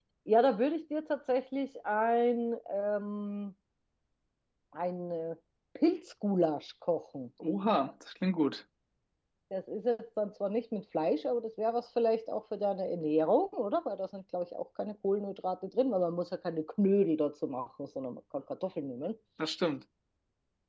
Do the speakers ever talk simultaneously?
No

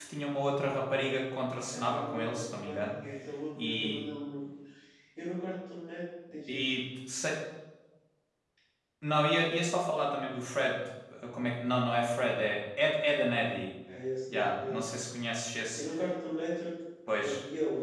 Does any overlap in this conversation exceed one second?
Yes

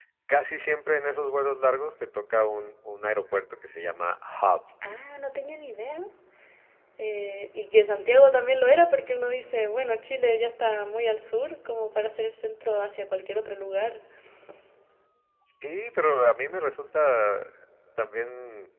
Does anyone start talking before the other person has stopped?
No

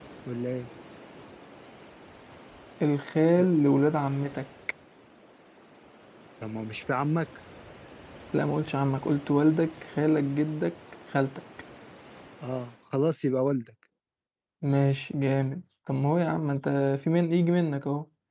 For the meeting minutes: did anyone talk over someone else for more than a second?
No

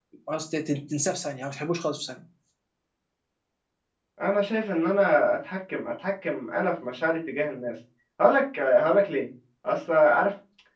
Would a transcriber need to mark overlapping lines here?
No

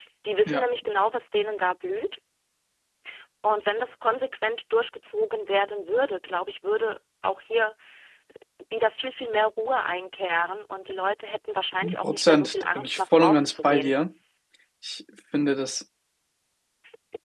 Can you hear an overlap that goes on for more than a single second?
Yes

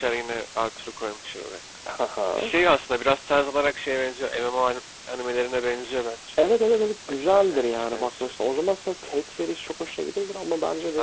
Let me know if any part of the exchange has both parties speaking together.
Yes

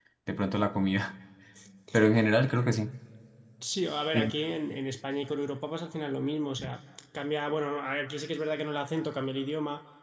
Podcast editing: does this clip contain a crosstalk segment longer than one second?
No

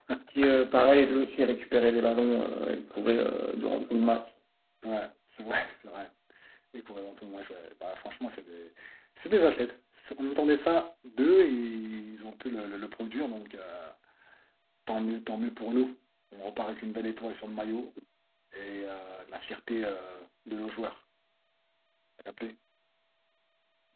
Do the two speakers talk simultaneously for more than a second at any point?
No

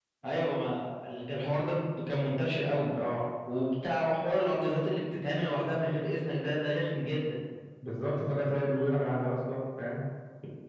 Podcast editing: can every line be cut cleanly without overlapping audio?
Yes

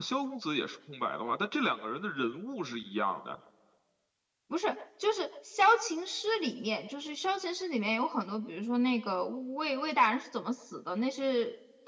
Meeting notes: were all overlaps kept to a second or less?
Yes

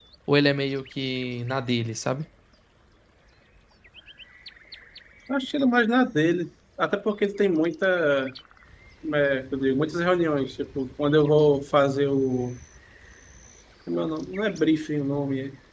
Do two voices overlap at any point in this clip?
No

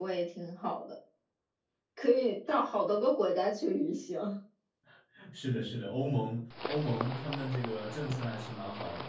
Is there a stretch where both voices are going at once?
No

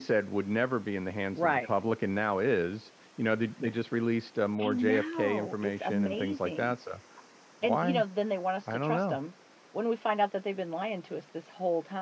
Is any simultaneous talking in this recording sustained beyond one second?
Yes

